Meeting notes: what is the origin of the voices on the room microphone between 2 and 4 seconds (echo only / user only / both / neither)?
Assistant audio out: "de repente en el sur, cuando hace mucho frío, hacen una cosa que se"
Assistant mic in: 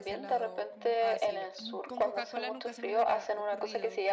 both